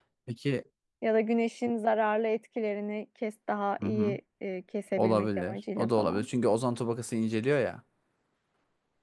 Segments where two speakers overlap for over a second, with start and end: 5.0-6.3

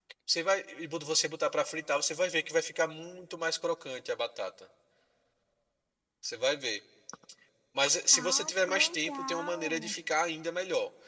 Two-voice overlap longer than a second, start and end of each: 8.1-9.9

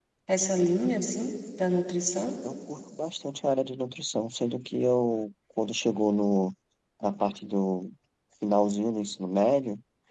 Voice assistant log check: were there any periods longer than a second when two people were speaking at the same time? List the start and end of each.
none

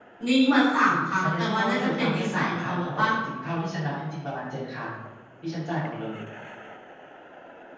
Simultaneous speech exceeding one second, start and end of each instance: 0.9-3.1

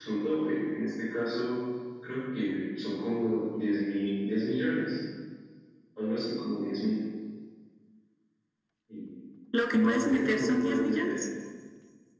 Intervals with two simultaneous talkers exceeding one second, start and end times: 9.7-11.2

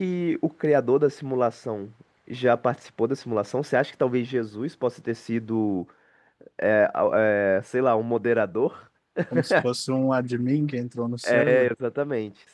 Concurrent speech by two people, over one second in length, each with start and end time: none

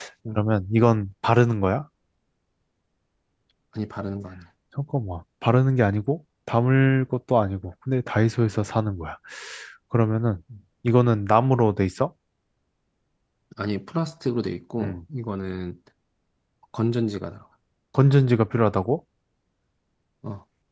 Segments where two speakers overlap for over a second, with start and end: none

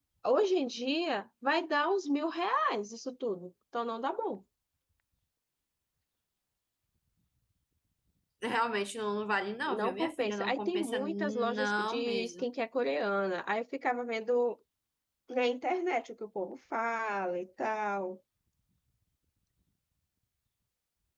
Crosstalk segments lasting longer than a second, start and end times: 9.7-12.4

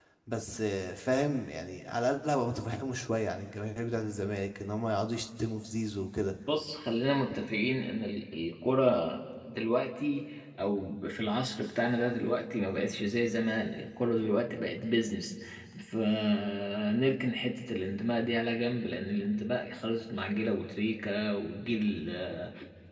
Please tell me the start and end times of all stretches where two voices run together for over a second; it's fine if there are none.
none

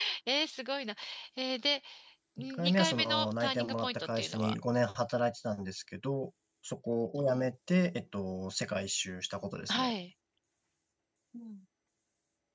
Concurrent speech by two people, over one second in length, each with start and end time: 2.4-4.6

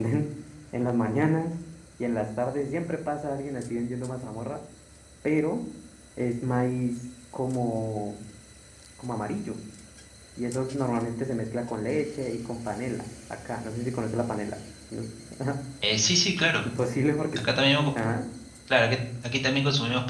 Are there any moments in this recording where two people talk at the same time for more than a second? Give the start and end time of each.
none

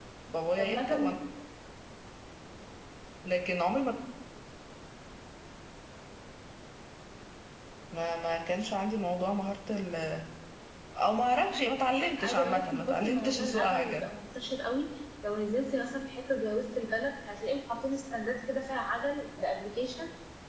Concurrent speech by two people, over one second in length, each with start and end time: 12.2-14.1

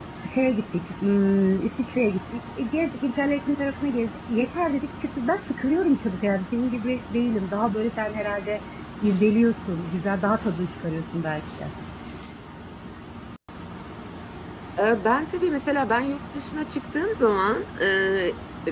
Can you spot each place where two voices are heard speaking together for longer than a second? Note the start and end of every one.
none

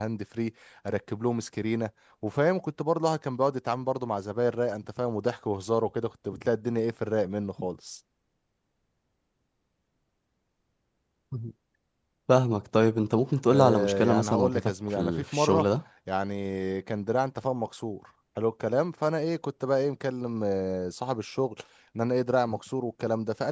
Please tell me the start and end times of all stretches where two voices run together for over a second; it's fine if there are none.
13.5-15.7

